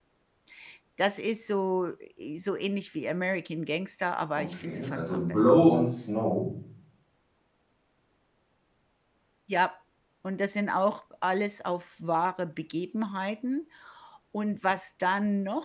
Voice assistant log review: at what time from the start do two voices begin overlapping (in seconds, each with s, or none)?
4.4 s